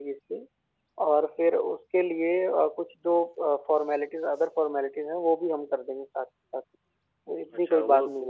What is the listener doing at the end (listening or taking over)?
taking over